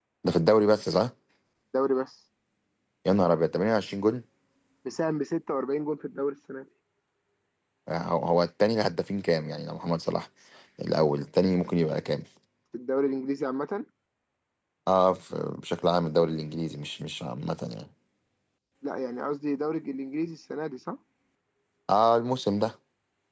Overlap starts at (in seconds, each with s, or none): none